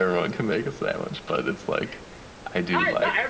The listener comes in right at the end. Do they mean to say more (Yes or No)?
Yes